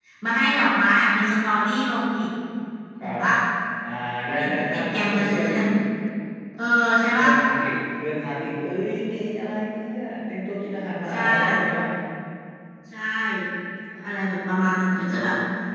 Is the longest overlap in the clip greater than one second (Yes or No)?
Yes